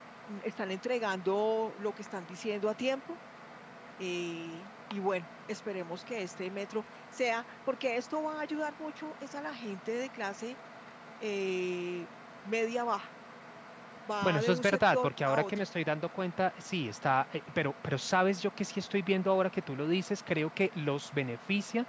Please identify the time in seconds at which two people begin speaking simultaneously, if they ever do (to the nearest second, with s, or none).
14 s